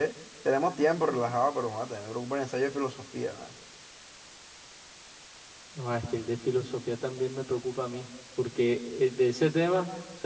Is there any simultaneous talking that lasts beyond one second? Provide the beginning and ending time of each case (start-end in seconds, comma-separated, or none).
none